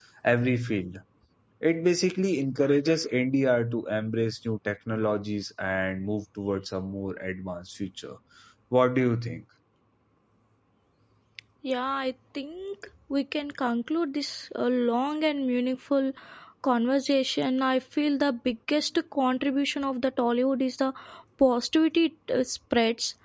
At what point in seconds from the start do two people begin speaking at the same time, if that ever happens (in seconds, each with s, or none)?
none